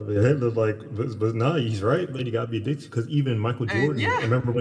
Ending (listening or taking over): listening